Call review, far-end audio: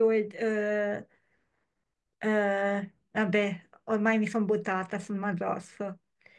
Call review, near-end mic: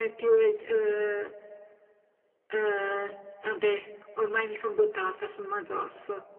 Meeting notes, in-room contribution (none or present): none